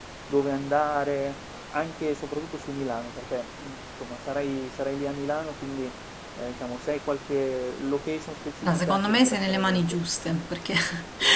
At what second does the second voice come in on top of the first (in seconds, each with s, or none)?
8.6 s